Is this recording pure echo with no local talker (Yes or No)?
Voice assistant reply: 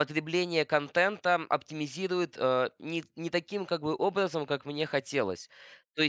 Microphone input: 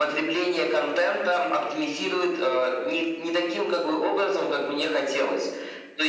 Yes